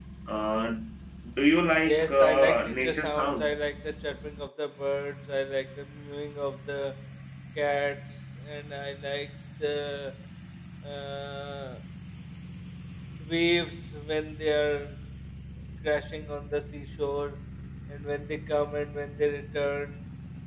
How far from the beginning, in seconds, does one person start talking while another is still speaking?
1.9 s

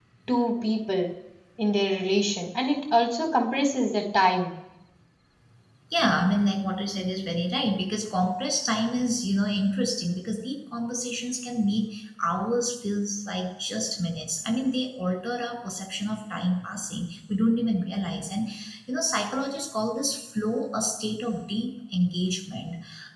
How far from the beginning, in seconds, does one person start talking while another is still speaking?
none

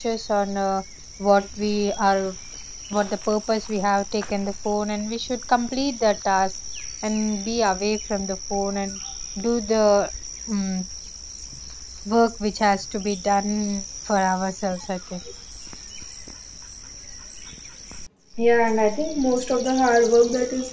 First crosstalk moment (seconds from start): none

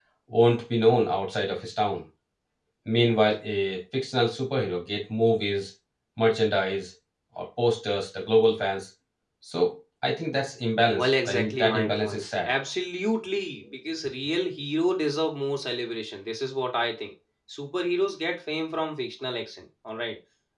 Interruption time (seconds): 10.9 s

